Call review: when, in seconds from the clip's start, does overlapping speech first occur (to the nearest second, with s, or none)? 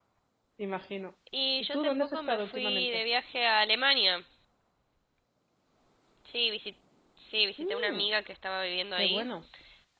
2 s